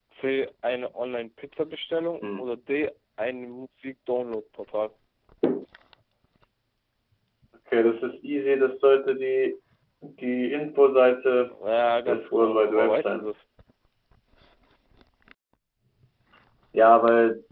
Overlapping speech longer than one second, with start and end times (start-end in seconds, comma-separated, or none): 12.1-13.3